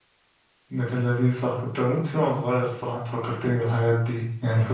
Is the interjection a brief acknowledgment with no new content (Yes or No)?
Yes